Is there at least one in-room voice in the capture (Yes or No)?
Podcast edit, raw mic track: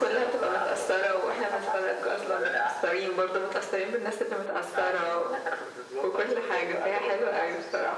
No